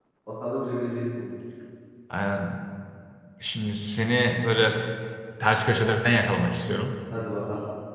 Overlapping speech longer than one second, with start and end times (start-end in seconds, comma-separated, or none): none